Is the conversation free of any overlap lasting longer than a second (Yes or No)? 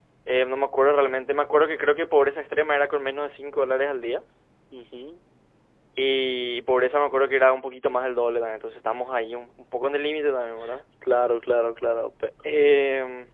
Yes